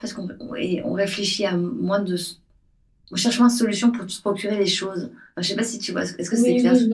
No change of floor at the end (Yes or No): No